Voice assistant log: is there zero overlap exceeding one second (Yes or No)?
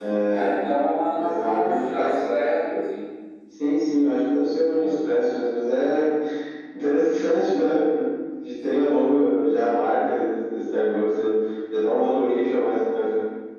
No